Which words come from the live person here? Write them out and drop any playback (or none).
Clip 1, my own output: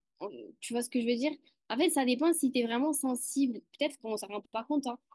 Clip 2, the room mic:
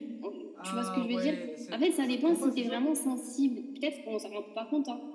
Ah ouais, c'est le jeu de combat, c'est ça?